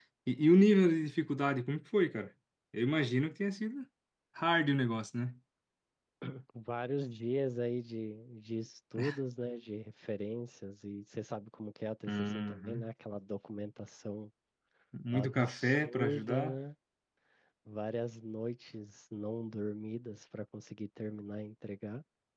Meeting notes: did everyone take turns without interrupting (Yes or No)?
No